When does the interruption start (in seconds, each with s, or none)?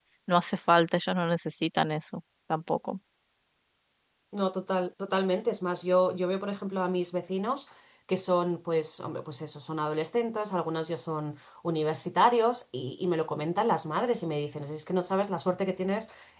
none